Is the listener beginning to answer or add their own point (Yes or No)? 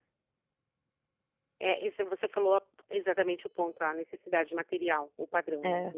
No